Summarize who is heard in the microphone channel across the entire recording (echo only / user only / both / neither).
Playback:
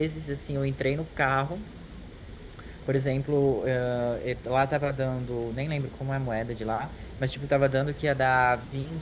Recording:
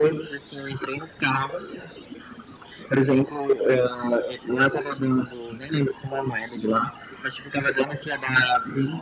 echo only